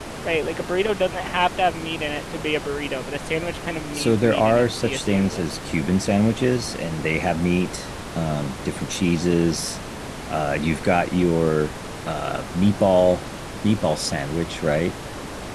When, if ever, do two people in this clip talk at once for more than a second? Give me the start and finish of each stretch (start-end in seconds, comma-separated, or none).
3.9-5.4